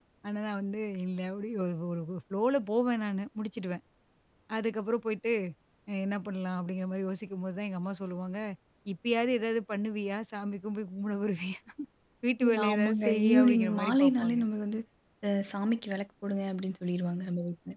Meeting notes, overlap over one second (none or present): present